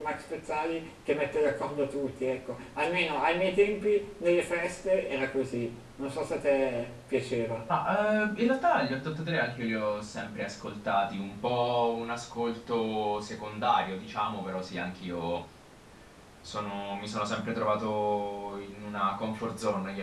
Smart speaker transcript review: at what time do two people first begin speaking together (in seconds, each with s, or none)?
none